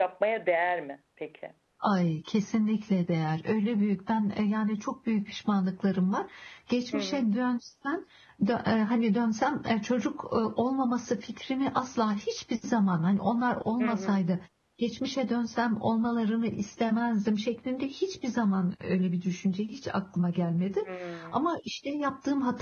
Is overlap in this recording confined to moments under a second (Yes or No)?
Yes